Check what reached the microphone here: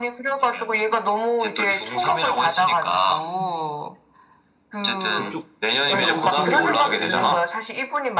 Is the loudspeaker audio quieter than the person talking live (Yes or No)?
No